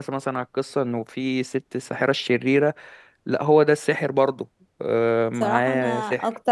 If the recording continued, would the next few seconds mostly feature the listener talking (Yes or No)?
Yes